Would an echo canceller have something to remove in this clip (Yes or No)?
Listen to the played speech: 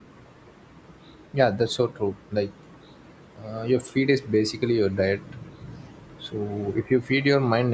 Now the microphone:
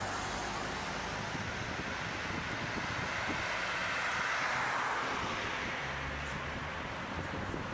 No